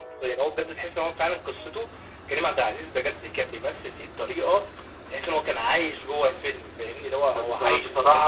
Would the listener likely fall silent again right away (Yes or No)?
No